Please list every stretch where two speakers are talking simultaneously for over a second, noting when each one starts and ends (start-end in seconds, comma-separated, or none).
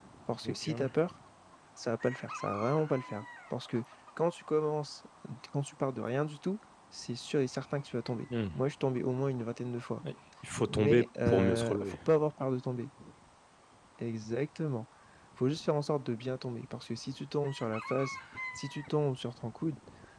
10.7-11.9